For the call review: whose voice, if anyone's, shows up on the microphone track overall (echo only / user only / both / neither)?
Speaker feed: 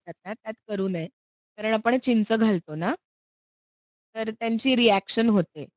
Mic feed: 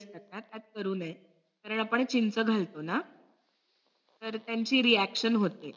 echo only